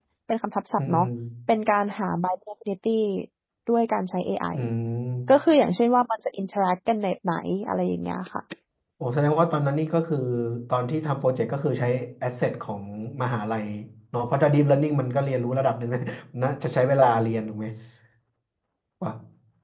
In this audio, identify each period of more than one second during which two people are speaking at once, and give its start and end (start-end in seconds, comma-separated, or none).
none